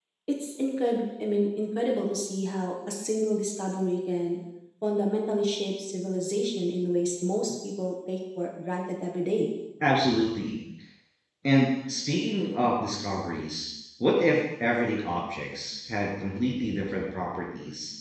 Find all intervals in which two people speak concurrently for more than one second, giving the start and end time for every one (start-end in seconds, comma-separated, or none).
none